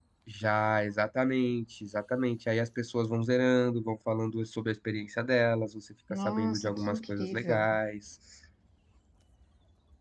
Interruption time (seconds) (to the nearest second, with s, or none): 6 s